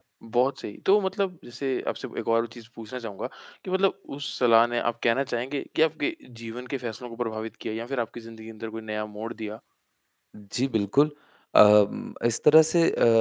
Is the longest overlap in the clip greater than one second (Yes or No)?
No